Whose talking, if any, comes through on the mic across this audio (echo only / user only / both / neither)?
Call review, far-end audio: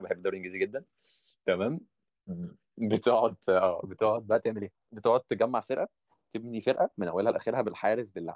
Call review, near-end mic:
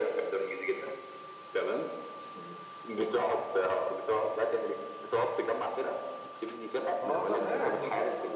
both